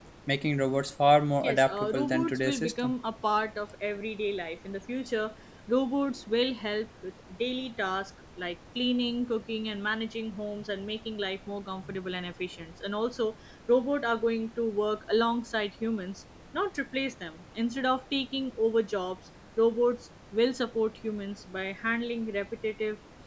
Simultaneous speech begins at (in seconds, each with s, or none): 1.4 s